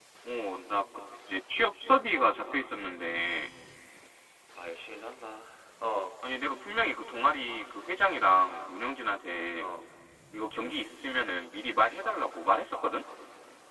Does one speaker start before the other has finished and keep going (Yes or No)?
No